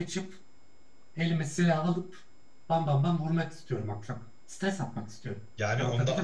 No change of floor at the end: No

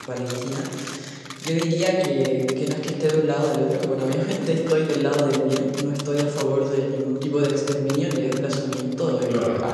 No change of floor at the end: Yes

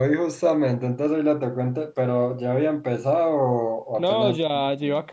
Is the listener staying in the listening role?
No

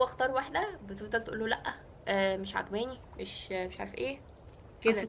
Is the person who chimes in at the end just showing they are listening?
No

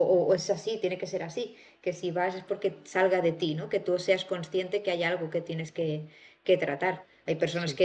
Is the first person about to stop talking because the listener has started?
No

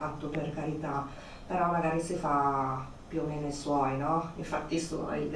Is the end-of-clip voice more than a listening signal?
No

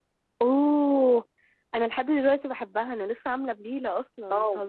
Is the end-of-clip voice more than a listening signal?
Yes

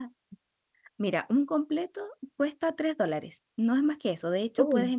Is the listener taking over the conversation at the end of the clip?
No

